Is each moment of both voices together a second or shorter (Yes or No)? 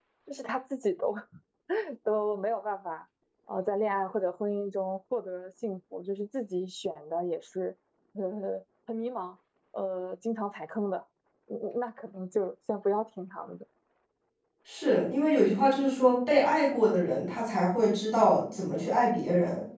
Yes